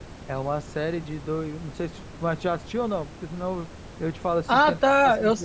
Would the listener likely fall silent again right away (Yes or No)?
No